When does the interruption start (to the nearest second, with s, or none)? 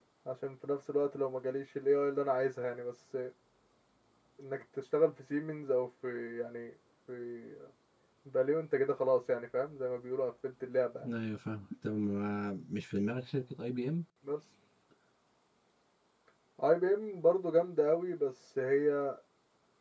none